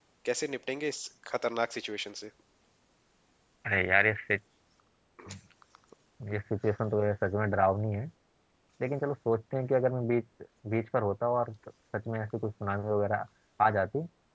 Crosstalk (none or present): none